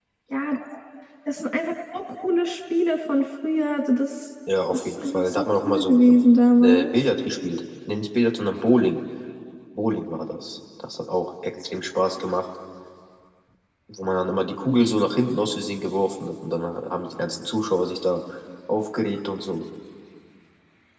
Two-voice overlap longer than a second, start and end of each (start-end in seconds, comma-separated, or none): 4.7-6.0